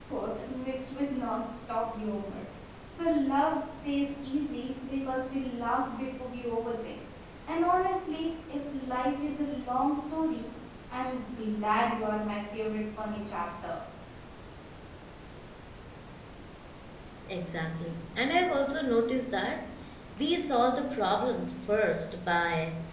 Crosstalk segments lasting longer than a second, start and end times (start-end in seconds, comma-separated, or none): none